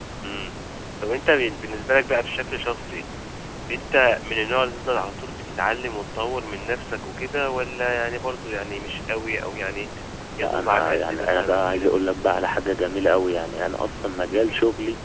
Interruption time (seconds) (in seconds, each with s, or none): 10.4 s